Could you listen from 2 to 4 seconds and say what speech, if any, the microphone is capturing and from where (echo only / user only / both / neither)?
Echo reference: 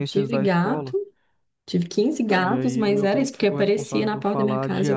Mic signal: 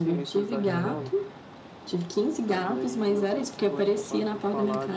echo only